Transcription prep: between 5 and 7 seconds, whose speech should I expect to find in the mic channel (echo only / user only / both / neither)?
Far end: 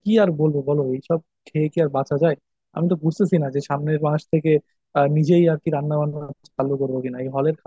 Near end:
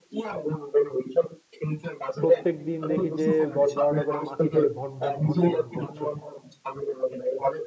both